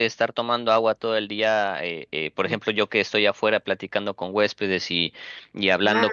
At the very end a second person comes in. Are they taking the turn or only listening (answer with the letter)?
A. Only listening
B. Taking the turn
A